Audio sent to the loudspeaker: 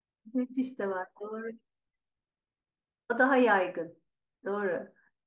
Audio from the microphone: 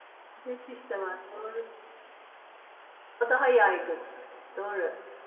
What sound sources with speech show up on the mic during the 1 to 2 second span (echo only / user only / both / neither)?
echo only